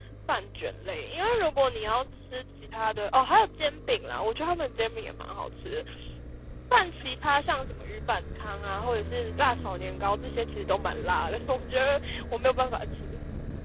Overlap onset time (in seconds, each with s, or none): none